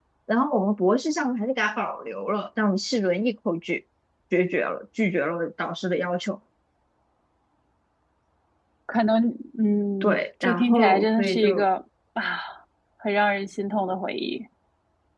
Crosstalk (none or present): present